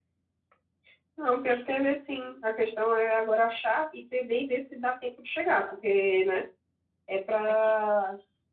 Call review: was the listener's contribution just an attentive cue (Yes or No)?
Yes